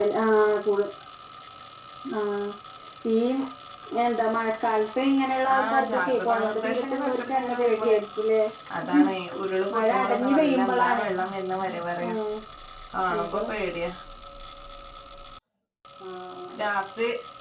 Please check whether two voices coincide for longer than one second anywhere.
Yes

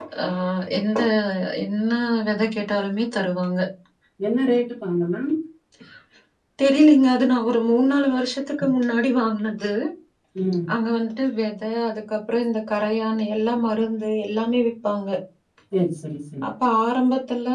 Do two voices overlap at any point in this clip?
No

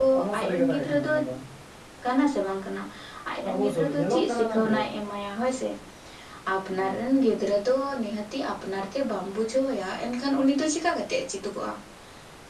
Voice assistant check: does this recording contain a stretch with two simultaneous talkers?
Yes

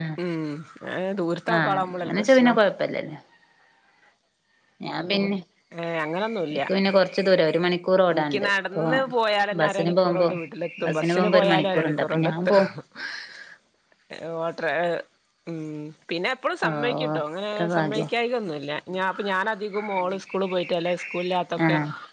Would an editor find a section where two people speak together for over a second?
Yes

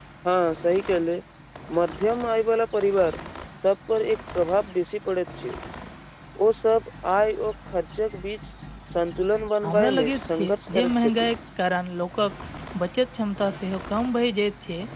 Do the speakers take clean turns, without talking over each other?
No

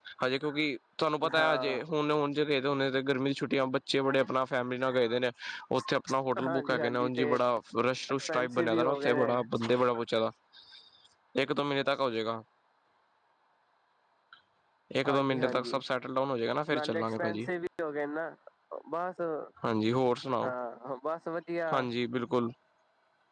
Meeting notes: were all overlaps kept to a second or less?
No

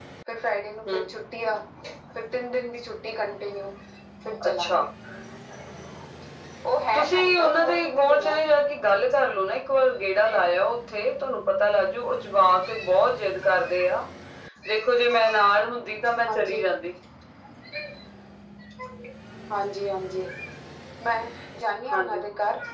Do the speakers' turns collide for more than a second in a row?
Yes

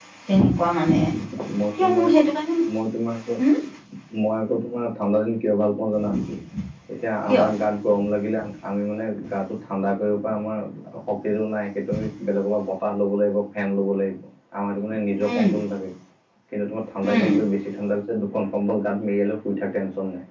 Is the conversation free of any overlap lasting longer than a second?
Yes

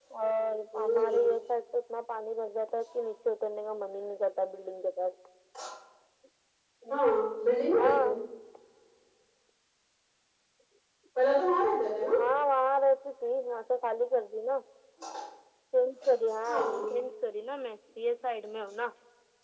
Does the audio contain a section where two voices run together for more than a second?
No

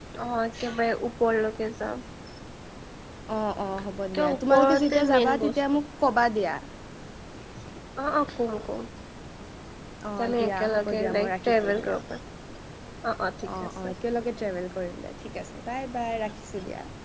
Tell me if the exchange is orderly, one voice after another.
No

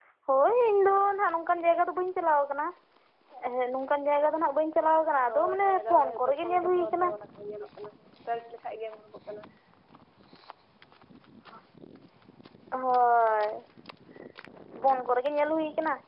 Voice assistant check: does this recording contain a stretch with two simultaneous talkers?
Yes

